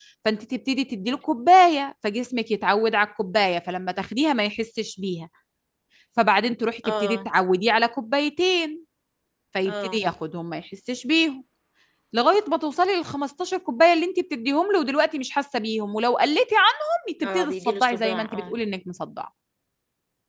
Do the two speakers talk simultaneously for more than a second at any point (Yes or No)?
Yes